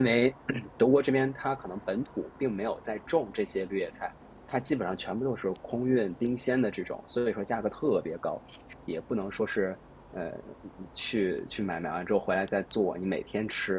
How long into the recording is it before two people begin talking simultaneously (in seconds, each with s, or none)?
none